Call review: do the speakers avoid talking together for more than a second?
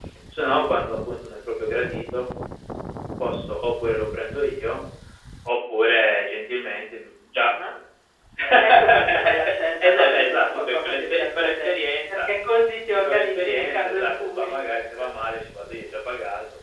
No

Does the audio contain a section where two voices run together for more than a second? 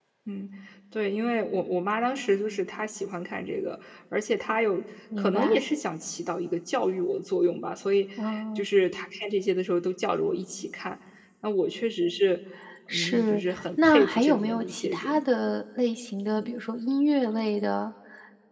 Yes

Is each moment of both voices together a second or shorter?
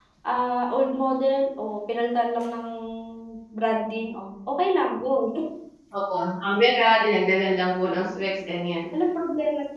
Yes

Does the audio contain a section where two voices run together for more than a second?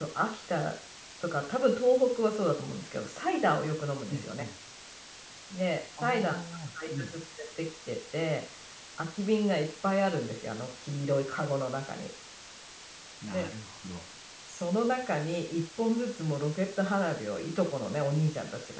No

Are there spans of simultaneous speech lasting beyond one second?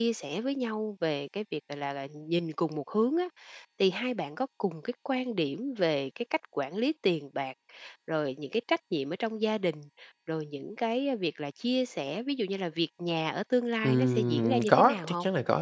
Yes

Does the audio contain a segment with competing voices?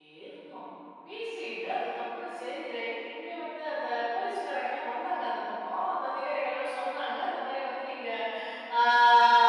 No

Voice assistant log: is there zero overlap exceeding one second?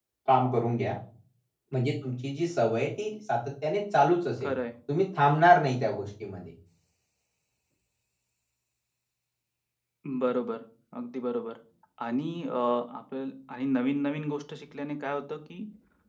Yes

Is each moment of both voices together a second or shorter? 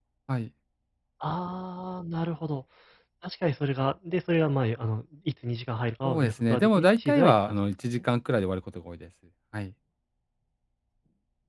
No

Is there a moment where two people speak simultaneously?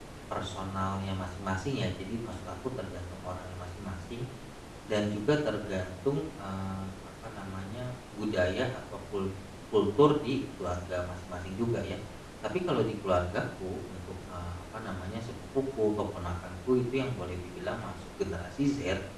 No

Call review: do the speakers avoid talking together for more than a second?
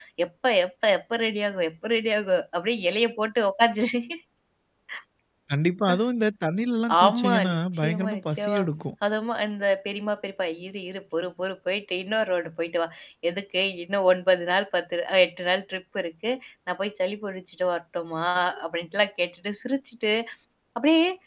No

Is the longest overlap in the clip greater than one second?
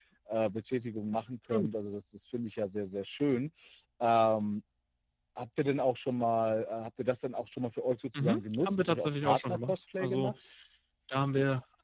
Yes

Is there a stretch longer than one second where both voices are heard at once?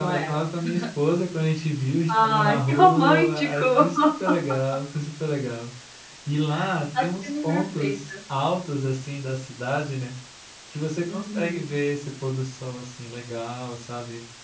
Yes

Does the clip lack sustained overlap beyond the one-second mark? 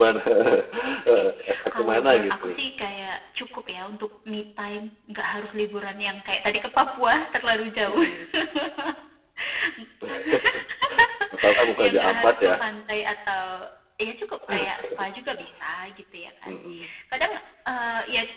No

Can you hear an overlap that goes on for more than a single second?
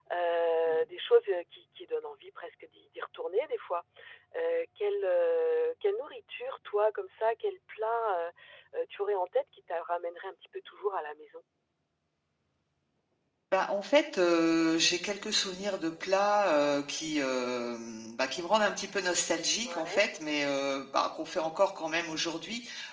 No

